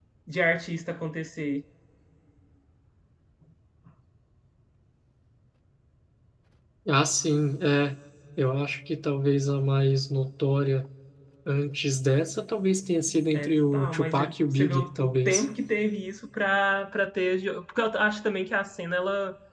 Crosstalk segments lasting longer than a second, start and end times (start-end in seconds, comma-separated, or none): 13.3-15.4